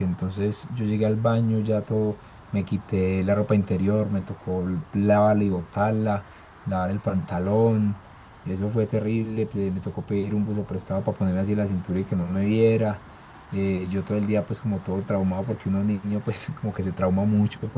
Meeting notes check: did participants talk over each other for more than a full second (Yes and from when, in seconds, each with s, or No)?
No